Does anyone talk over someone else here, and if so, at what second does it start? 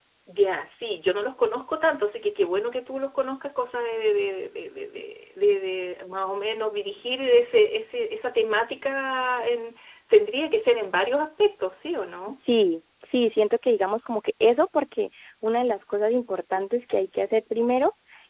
none

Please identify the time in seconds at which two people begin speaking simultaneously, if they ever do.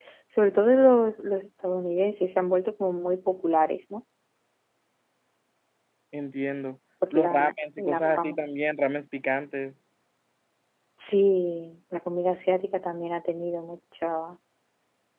7.0 s

